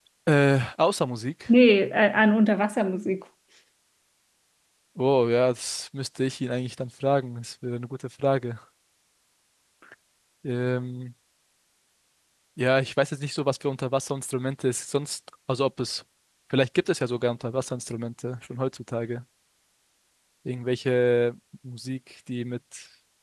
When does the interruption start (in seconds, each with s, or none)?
none